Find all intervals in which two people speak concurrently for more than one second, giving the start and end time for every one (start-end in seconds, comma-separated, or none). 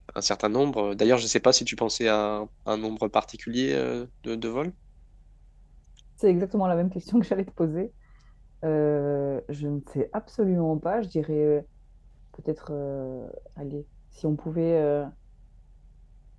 none